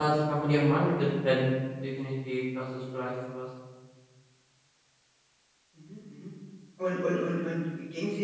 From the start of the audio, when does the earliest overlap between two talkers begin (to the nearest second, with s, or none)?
none